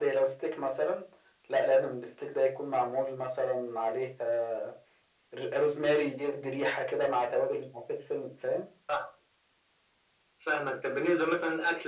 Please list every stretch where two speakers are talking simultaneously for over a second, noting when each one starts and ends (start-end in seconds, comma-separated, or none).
none